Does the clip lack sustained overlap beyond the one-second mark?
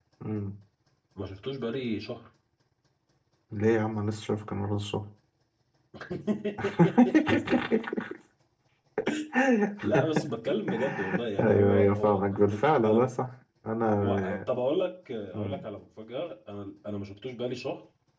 No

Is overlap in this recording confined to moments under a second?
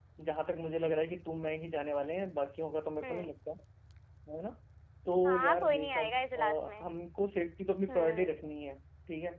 No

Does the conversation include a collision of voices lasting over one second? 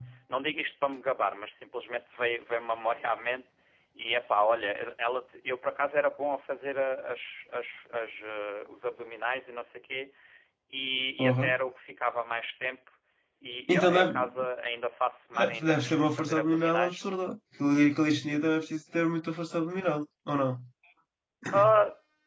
Yes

